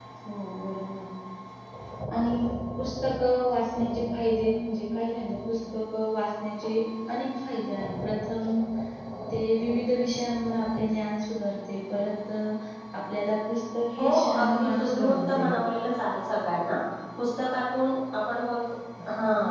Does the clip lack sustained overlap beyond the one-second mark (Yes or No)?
No